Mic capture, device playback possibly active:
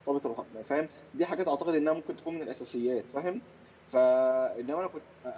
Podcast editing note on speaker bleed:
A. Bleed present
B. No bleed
B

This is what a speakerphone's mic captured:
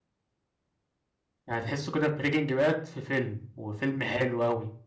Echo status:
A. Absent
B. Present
A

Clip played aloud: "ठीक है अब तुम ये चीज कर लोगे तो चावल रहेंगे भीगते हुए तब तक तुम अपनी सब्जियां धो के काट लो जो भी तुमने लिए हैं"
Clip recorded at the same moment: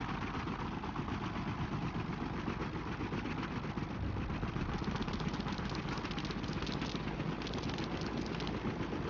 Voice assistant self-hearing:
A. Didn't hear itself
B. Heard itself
A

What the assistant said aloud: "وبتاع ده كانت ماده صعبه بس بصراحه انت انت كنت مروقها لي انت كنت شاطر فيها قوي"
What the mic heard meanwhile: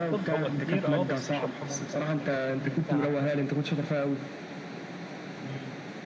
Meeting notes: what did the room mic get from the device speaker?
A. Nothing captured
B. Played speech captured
B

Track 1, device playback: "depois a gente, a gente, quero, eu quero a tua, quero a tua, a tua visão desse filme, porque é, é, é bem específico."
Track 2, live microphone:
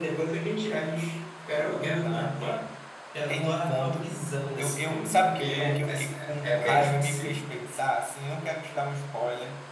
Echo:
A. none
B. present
B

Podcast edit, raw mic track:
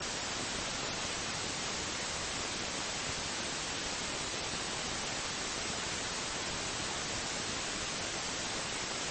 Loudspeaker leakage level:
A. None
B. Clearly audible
A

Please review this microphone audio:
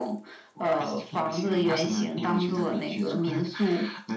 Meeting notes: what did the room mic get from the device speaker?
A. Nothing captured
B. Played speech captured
B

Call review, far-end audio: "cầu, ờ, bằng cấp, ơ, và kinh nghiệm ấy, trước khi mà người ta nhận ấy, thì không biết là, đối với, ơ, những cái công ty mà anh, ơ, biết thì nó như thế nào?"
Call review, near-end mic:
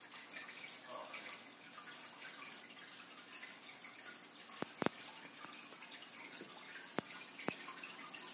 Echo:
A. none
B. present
A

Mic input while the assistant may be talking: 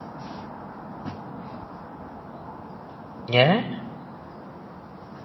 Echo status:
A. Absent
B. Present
A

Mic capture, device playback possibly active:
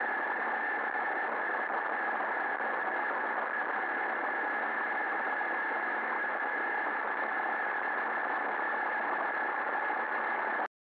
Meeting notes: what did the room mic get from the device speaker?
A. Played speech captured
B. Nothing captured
B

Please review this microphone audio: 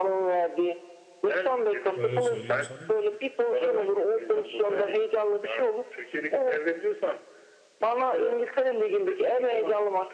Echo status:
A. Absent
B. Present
B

